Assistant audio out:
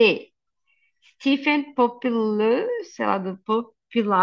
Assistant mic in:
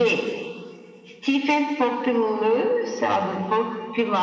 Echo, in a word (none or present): present